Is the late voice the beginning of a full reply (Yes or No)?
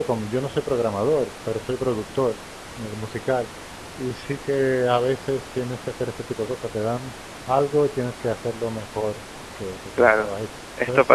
Yes